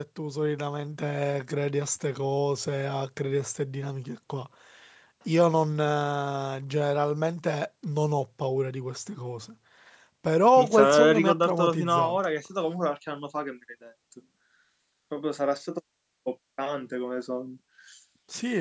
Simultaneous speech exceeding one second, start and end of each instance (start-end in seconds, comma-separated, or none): 10.6-12.2